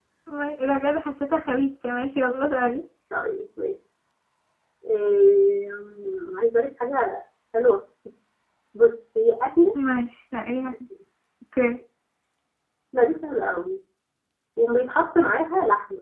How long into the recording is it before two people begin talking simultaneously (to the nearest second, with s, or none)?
none